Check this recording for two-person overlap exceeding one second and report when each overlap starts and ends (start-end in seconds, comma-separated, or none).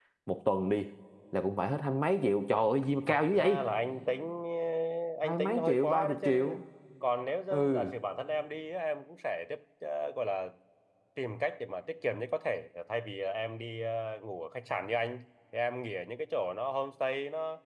5.2-6.6